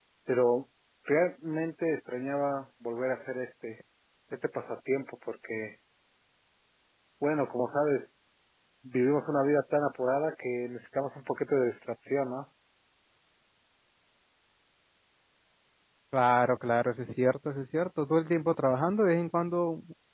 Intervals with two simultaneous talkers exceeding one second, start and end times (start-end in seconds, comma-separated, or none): none